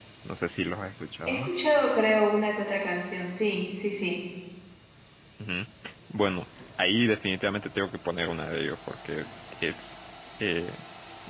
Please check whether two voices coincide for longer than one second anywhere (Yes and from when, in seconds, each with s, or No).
No